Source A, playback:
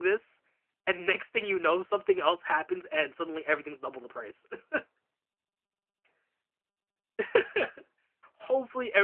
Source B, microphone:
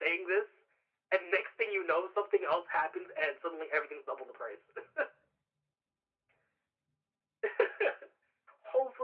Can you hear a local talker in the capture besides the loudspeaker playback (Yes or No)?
No